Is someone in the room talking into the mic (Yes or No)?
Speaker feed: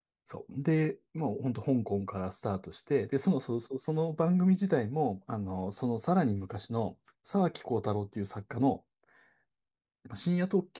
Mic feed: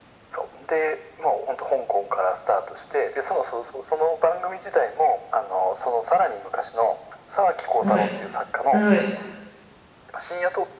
Yes